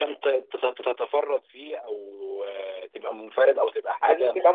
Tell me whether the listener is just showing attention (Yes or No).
Yes